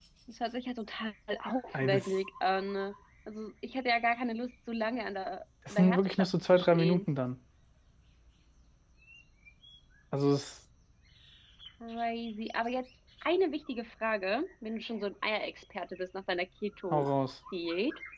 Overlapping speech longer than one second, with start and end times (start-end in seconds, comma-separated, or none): 5.7-7.0